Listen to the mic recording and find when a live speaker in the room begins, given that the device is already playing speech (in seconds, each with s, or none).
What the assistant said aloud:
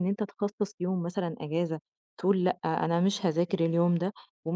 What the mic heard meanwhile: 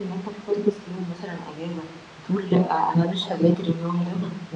none